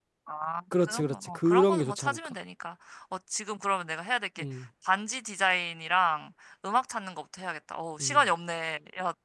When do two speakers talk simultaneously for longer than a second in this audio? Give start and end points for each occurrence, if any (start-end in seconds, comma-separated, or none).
0.8-2.4